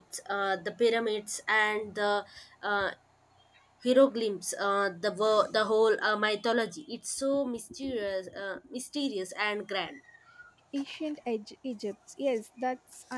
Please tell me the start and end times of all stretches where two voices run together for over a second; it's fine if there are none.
none

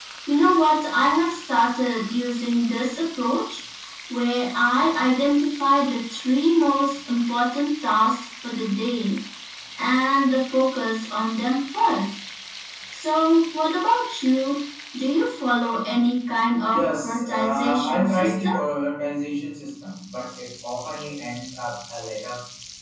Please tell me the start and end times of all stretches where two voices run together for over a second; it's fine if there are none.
16.7-18.5

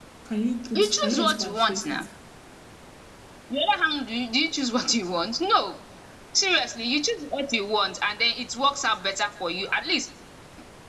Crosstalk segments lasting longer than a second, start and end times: 0.8-2.0

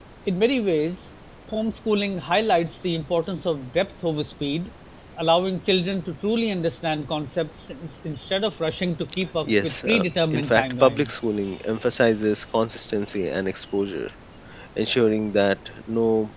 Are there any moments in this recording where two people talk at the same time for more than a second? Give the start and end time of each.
9.4-11.1

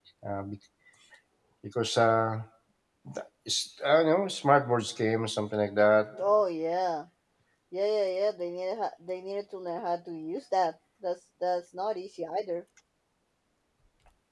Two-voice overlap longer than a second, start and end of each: none

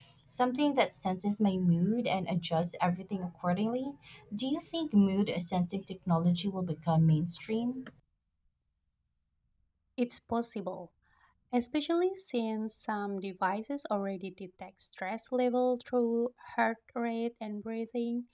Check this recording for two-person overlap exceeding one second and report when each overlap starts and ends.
none

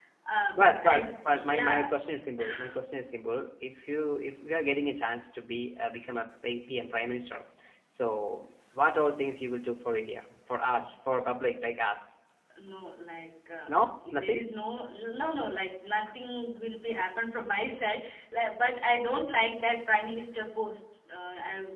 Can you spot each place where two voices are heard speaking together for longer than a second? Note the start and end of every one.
0.5-1.9

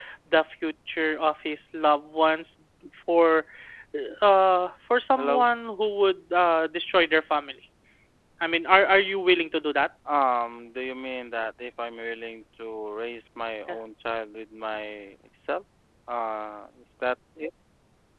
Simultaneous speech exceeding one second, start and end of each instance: none

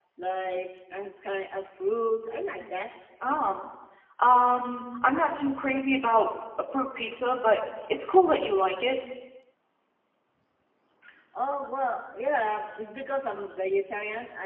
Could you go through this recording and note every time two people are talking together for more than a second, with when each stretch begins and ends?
none

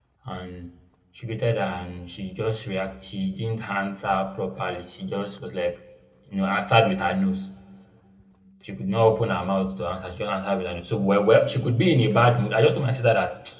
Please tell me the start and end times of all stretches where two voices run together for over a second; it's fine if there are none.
none

